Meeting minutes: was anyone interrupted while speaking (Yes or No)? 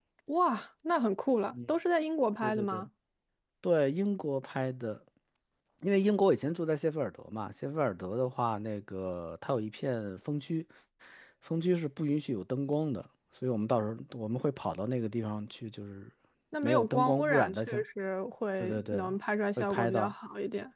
Yes